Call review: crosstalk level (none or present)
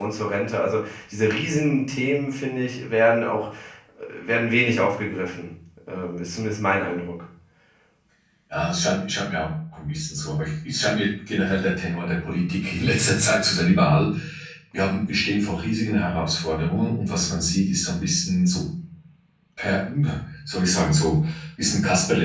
none